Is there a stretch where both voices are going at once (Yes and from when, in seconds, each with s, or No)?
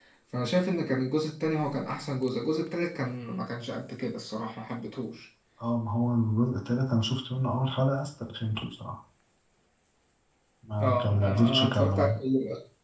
Yes, from 10.8 s